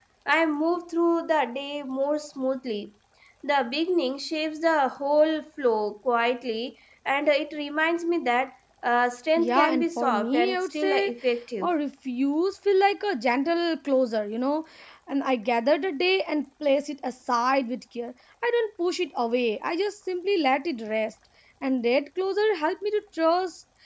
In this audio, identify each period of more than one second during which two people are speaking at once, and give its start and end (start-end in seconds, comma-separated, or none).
9.4-11.1